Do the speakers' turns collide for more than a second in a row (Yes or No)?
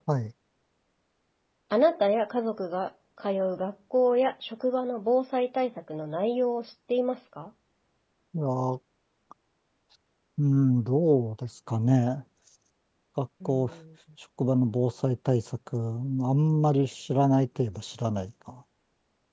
No